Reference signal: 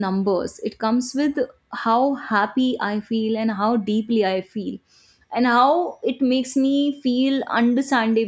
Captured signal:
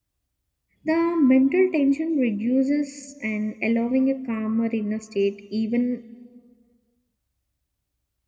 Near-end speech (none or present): present